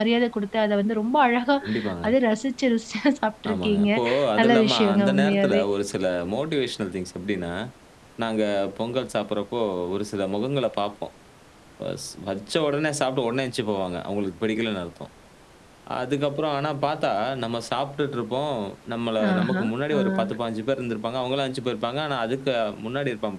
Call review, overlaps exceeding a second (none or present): present